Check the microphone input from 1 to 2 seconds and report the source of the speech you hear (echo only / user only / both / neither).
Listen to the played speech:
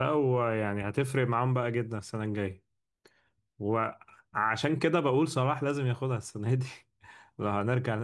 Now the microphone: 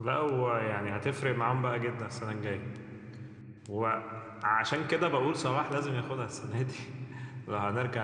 echo only